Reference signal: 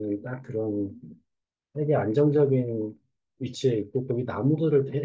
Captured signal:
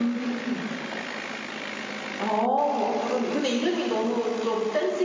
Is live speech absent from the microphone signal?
No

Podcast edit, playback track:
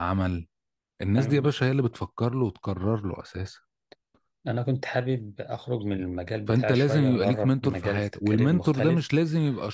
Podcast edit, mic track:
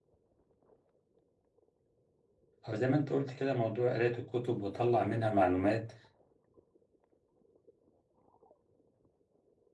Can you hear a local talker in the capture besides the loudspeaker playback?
Yes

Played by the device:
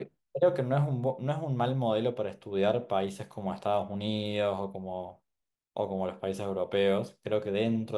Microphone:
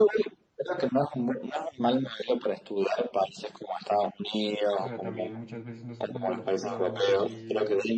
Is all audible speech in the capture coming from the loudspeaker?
No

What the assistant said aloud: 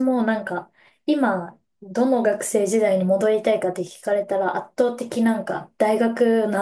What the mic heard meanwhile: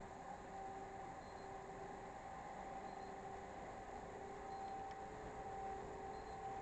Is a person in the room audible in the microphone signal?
No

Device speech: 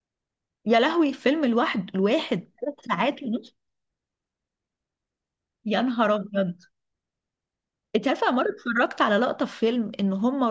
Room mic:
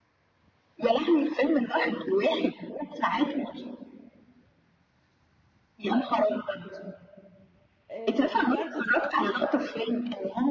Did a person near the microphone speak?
Yes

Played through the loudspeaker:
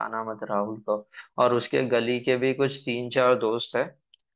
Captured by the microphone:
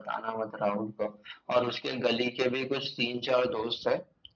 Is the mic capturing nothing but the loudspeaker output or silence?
Yes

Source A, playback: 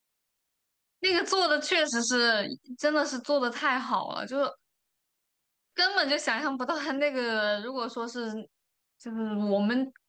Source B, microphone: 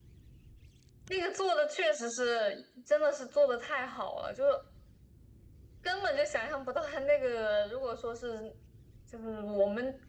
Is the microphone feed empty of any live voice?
Yes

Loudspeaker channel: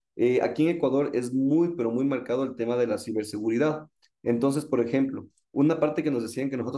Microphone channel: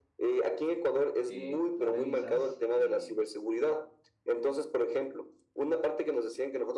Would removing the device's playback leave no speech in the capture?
No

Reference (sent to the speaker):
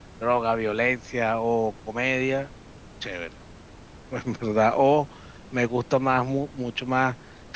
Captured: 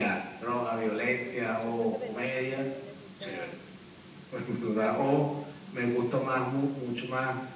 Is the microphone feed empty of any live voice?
No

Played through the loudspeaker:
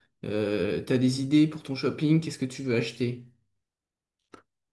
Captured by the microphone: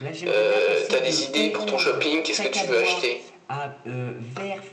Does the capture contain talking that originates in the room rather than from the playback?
Yes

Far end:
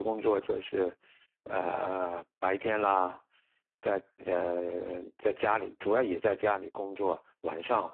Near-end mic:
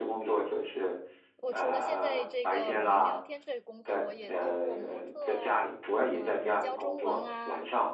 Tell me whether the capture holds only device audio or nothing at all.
No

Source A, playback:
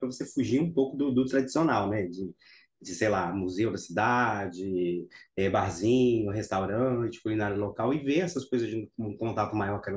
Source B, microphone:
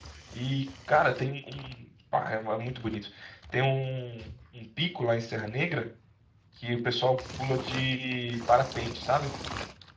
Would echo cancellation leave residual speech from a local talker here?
Yes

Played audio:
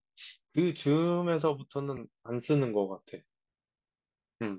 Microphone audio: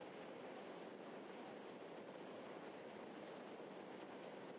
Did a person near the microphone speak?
No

